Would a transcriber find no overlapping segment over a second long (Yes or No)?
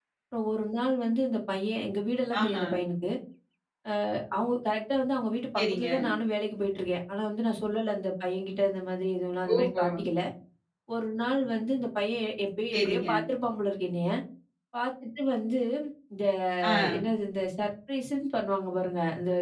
Yes